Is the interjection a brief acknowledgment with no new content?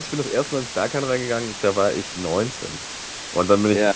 No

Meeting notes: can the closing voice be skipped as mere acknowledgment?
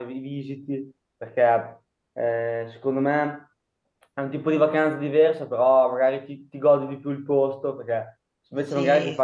Yes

